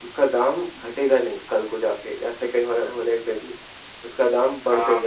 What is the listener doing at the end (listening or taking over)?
taking over